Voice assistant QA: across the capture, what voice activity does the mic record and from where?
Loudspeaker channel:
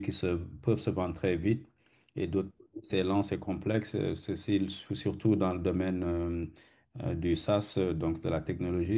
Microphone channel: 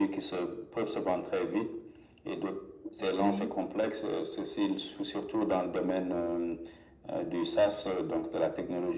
both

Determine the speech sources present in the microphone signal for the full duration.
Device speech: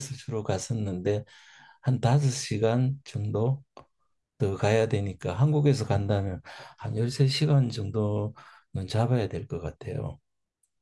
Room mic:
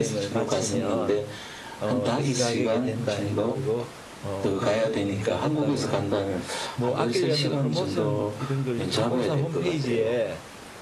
both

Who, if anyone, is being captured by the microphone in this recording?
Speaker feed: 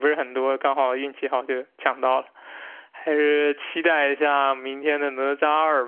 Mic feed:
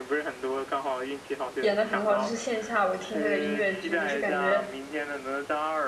both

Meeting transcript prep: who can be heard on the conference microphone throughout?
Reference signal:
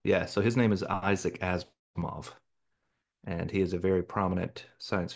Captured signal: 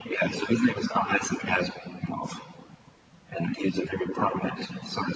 echo only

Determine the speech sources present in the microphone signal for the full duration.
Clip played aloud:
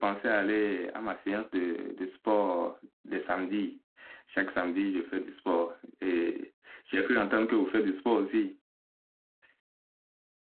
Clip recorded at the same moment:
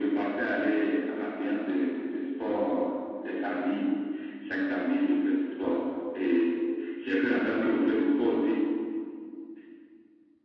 echo only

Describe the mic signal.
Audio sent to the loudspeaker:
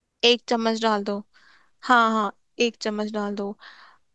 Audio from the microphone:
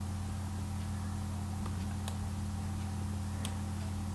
neither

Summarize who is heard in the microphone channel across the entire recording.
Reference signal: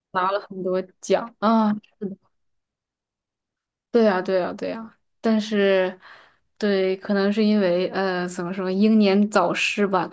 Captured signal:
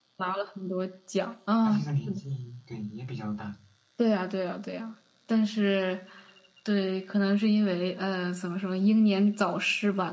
both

